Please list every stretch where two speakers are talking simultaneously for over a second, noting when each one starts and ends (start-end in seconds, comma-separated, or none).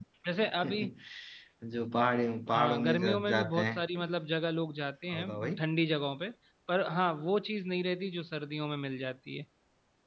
2.5-3.8